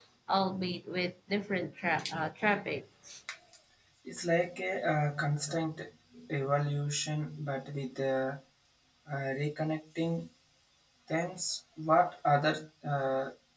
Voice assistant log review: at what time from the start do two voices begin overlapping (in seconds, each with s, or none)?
none